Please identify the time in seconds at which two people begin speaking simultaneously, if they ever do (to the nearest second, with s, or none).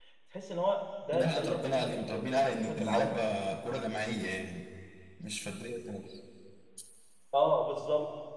1 s